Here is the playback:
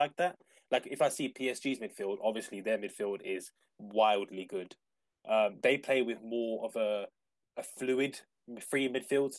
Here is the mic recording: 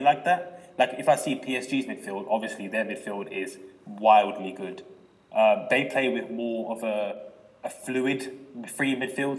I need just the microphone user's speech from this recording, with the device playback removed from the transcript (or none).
none